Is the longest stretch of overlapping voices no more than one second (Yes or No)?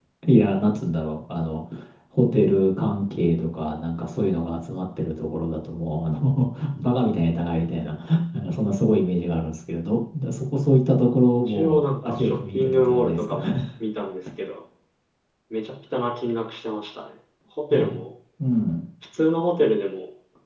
No